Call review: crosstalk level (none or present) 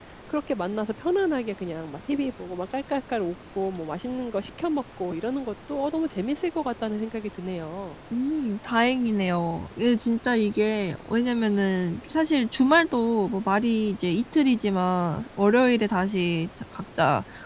none